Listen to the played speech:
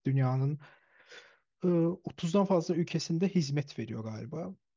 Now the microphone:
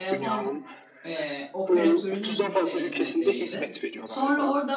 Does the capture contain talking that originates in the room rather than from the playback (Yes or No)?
Yes